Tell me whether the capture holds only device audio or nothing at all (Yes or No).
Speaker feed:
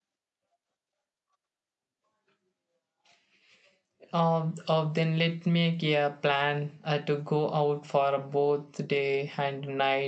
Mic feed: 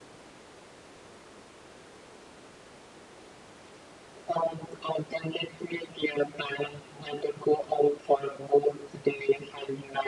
Yes